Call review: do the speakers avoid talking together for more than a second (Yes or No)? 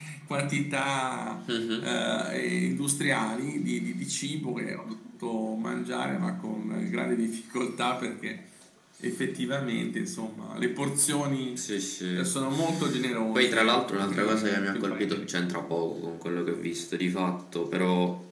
No